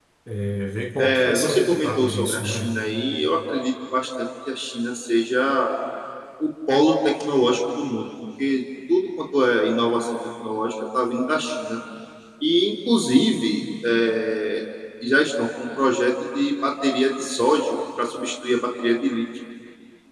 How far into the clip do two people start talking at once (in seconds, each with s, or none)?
1.0 s